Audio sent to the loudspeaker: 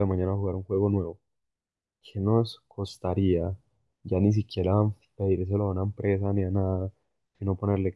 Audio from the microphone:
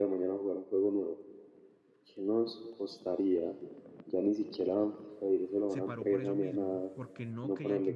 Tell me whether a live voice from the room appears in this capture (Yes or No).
Yes